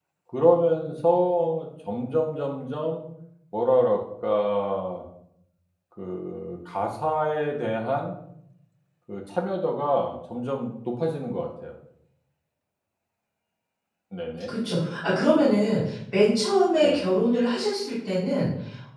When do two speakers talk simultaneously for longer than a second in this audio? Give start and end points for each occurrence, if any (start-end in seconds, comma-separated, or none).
none